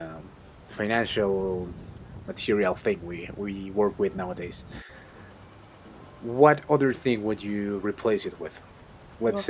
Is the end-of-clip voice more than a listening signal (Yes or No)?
No